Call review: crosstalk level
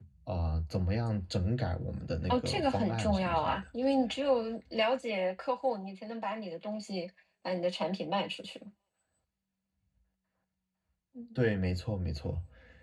present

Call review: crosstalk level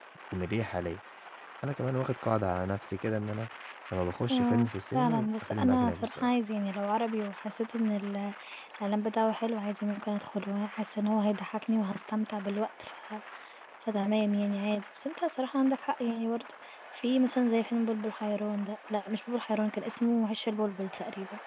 present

